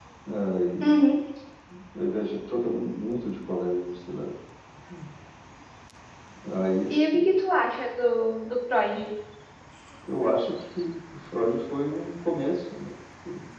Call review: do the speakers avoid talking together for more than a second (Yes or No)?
Yes